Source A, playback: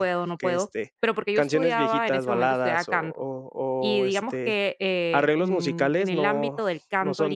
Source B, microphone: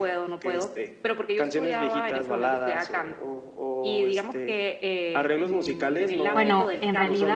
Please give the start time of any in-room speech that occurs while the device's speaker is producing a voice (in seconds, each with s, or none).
6.3 s